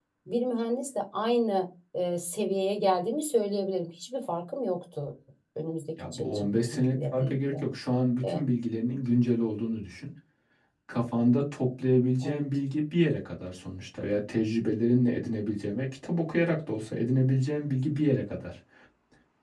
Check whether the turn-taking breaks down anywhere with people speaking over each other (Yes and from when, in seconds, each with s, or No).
Yes, from 6.0 s